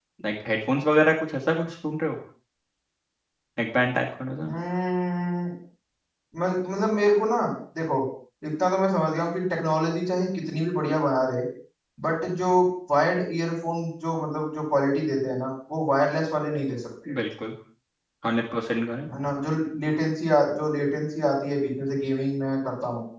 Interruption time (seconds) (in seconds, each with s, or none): none